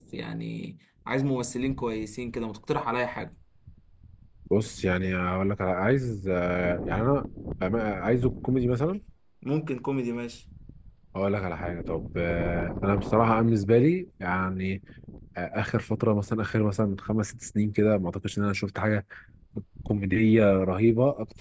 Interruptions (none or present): none